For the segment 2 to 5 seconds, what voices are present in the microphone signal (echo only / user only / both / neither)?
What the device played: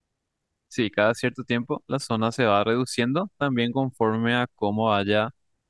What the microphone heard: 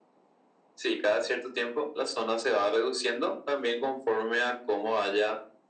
echo only